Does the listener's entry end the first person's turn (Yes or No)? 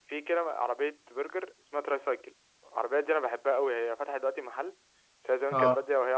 No